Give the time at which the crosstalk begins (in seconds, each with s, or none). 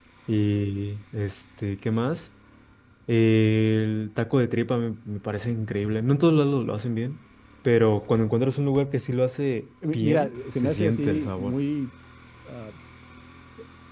9.8 s